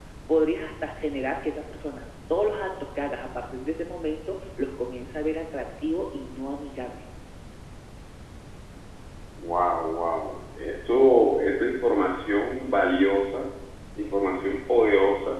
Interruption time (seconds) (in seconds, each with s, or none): none